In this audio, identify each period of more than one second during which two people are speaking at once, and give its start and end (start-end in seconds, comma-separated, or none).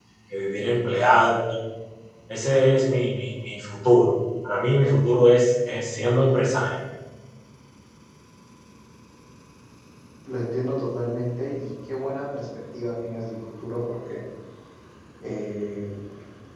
none